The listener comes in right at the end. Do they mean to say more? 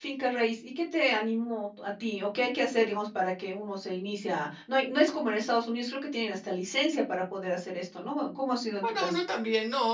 Yes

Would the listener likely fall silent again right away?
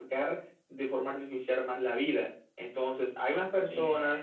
Yes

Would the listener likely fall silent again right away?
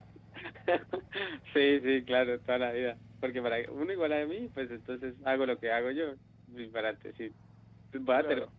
Yes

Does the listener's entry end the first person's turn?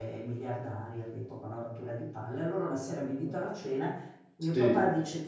No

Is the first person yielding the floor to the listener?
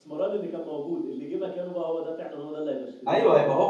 Yes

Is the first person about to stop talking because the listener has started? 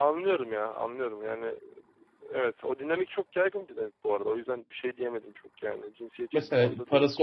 Yes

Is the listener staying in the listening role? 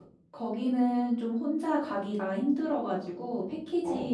Yes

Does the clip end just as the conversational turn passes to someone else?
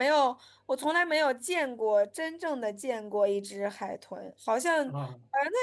No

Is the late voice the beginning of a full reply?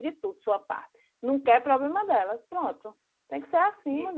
Yes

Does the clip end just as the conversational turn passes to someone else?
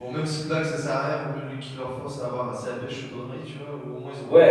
Yes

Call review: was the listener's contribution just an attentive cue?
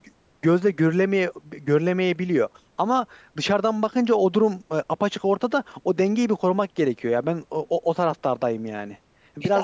Yes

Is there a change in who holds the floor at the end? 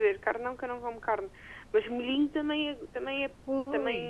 Yes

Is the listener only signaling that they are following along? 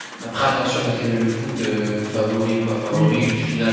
No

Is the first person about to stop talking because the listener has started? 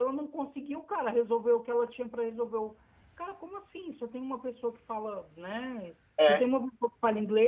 No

